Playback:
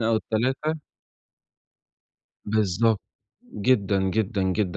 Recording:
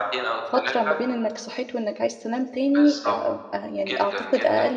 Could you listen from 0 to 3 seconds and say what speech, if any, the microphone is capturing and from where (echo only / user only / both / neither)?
both